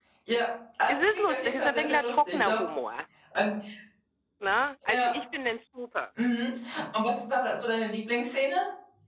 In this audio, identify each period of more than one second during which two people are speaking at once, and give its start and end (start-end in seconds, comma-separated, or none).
0.9-2.6